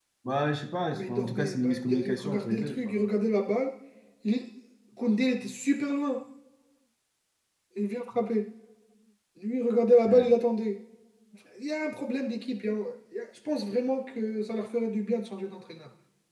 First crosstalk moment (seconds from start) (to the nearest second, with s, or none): 1 s